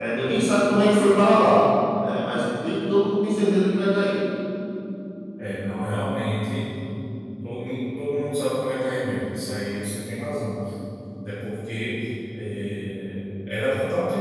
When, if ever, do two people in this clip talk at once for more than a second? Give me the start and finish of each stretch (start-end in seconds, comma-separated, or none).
none